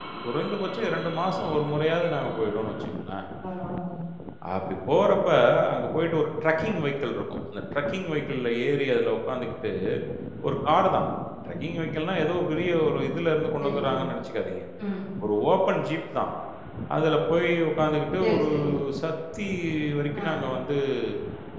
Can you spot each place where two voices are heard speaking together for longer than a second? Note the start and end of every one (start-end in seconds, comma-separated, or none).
none